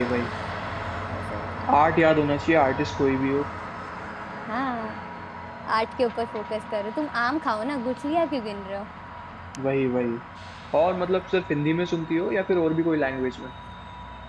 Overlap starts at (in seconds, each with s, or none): none